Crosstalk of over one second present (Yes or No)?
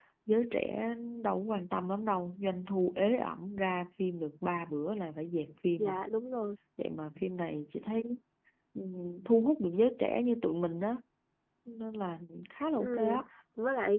No